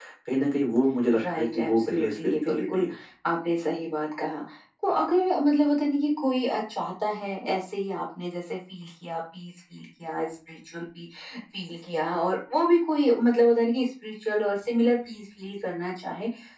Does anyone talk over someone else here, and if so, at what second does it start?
1.1 s

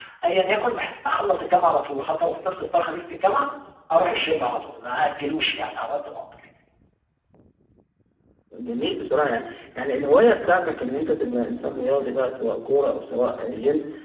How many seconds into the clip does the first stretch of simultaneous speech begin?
none

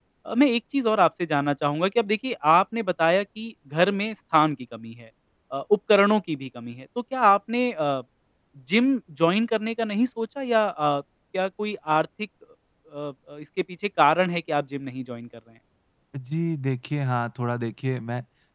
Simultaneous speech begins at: none

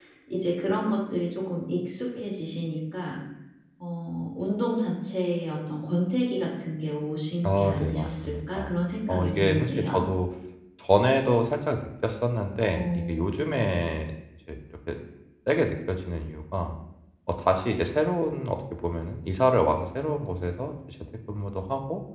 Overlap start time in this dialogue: 7.4 s

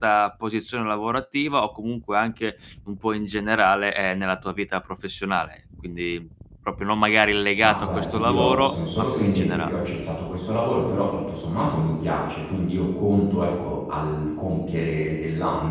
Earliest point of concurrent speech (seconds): 7.6 s

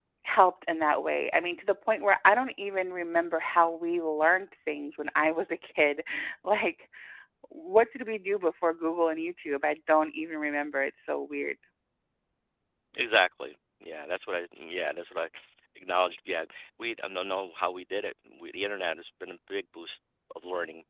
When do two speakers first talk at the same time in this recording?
none

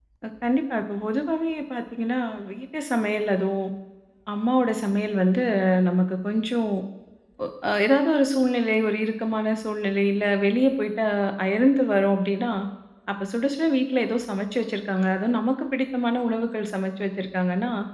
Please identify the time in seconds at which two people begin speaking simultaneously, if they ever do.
none

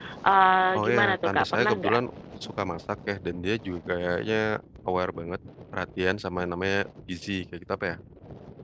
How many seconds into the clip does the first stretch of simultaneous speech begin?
0.8 s

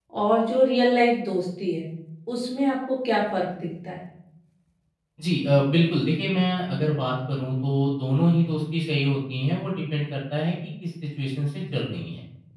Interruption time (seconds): none

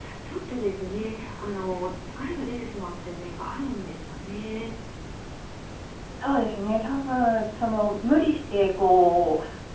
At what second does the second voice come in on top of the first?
none

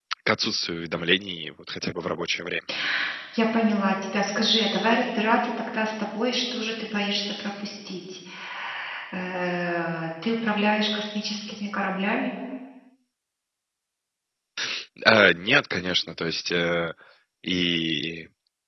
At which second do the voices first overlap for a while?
none

